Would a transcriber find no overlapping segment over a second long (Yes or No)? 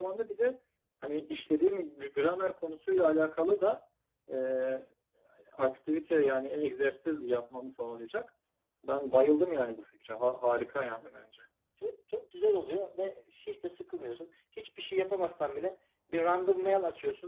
Yes